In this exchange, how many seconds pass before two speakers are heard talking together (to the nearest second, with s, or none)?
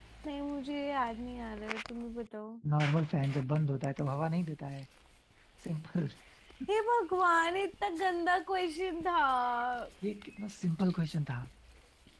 none